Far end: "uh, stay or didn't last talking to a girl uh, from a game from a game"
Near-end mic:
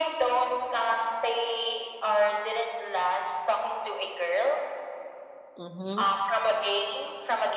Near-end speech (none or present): present